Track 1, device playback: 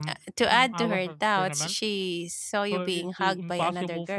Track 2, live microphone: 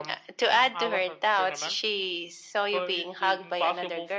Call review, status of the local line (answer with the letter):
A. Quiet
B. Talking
A